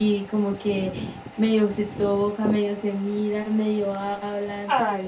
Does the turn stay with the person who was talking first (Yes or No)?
No